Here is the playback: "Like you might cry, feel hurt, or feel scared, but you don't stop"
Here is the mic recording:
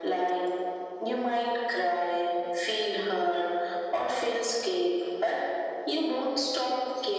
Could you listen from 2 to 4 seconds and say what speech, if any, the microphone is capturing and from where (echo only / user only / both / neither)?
echo only